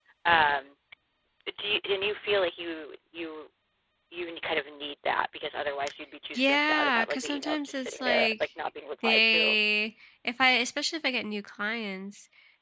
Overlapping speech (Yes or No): Yes